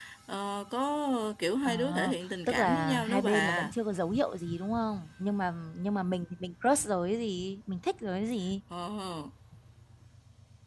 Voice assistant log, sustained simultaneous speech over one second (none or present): present